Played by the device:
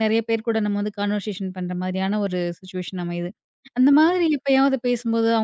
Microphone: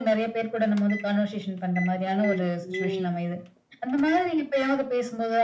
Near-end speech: present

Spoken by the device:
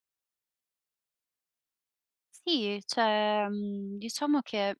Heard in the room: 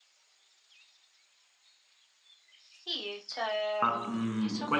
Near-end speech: present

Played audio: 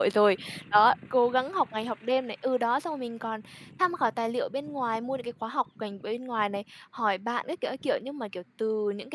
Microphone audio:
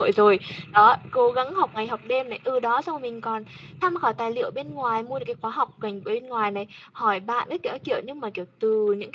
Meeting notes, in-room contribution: none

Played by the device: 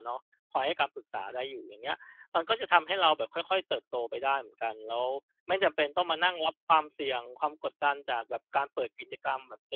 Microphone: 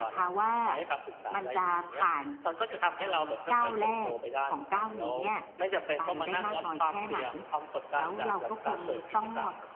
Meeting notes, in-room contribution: present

